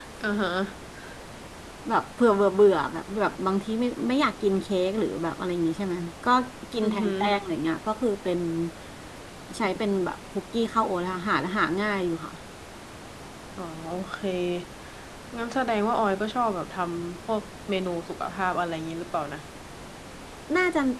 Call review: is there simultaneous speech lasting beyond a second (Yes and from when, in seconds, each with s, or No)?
No